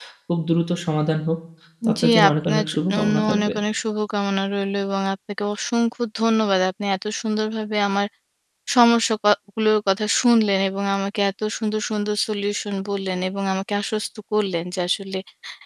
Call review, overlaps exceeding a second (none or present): present